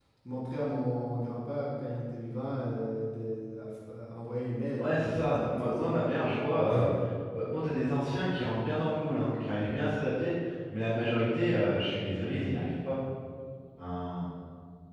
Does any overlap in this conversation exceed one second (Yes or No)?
Yes